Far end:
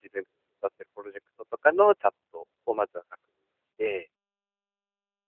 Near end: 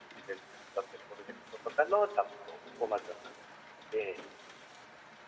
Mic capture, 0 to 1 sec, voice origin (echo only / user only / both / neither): echo only